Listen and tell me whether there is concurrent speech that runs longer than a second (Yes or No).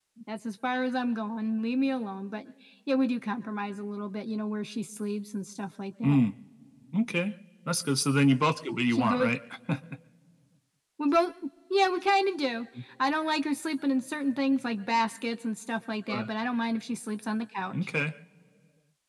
No